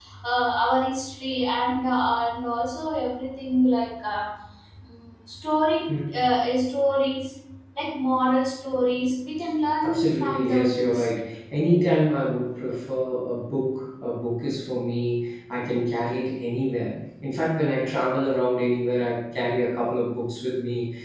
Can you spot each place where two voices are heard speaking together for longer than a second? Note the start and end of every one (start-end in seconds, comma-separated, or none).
9.8-11.1